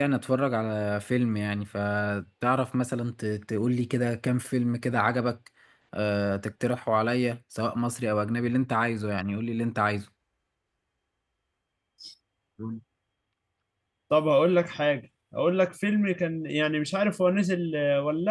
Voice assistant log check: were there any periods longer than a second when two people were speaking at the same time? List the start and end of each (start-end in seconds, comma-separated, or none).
none